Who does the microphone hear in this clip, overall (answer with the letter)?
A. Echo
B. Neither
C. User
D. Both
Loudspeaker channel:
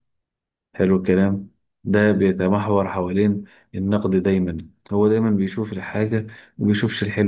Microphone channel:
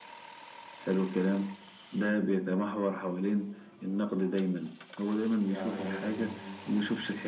D